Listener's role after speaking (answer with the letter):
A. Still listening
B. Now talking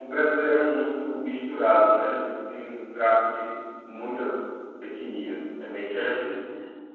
B